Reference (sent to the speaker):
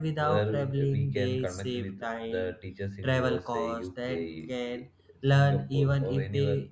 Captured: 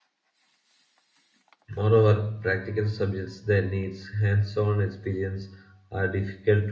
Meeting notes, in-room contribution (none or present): present